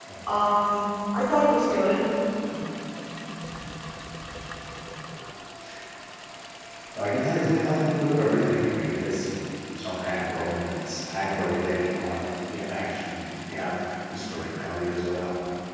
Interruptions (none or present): none